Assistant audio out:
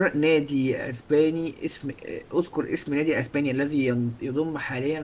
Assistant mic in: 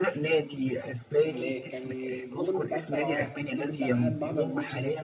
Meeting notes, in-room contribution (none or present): present